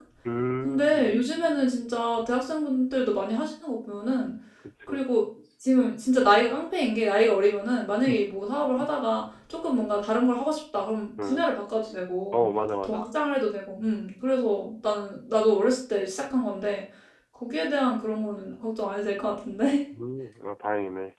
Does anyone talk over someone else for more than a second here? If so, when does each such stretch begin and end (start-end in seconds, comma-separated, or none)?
none